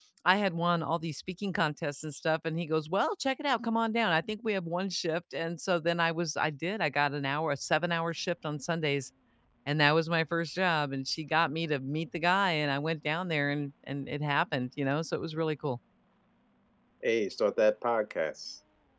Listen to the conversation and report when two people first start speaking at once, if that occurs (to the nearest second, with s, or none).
none